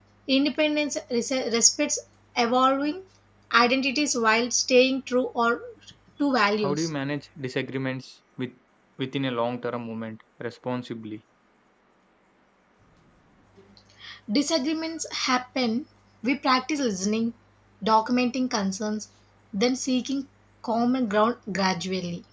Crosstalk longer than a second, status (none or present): none